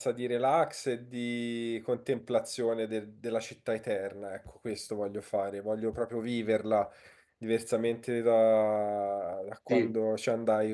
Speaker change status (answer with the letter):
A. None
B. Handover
A